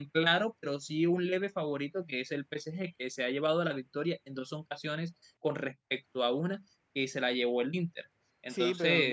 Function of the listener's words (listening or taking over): taking over